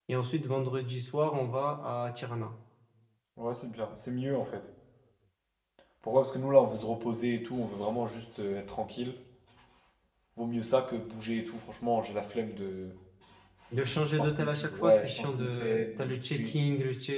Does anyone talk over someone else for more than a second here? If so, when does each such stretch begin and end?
13.7-16.5

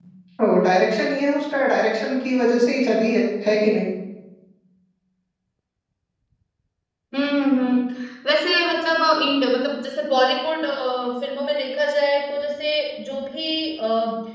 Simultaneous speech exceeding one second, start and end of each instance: none

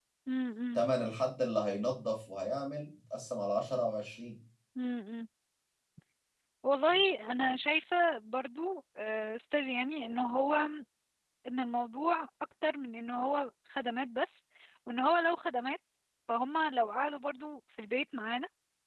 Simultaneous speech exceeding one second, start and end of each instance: none

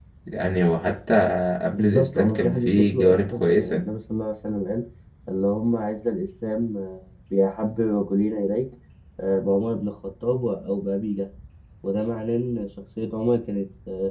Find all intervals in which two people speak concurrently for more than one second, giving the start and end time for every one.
1.7-3.9

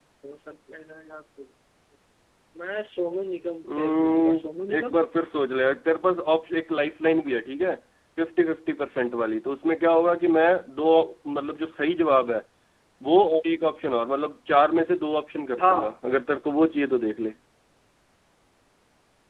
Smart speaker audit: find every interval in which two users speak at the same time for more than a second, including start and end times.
3.8-5.0

